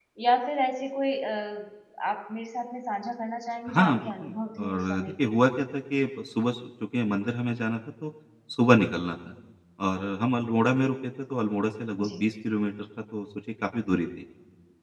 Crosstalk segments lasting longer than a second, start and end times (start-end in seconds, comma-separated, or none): 3.7-5.3